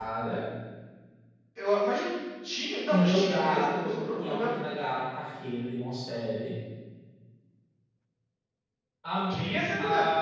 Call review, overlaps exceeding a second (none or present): present